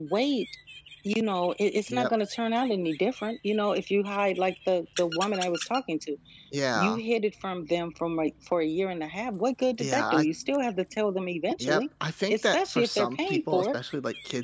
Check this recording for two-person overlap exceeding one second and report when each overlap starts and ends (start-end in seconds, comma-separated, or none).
12.3-13.8